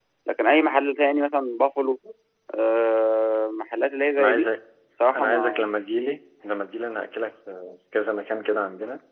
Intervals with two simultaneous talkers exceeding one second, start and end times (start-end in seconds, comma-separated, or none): none